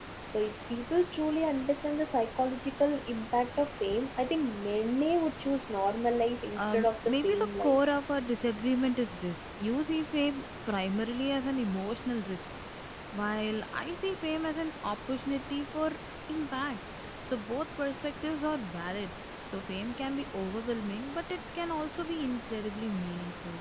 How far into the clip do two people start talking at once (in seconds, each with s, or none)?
6.6 s